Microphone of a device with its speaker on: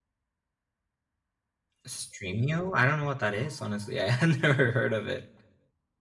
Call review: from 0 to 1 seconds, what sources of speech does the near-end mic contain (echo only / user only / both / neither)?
neither